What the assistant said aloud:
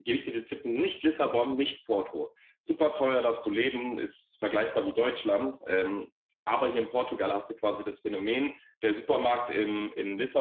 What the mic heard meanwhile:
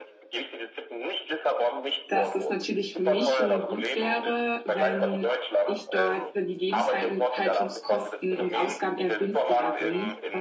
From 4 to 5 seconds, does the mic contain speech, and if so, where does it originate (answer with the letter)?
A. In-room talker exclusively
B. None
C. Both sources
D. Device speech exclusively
C